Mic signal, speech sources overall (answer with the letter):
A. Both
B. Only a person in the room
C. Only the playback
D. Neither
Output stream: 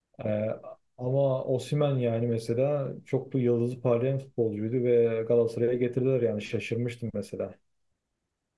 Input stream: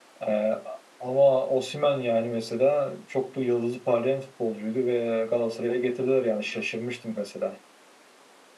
C